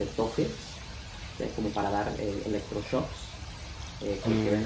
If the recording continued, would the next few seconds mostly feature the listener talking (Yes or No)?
Yes